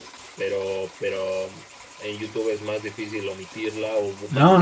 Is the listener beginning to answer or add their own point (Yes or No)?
Yes